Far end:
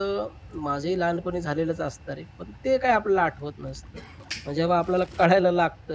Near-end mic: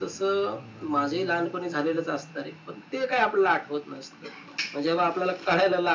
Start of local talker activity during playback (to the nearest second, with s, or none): none